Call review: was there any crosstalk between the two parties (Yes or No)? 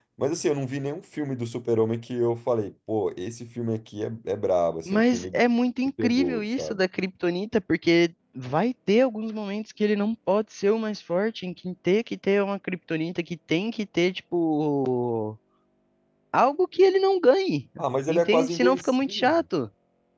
Yes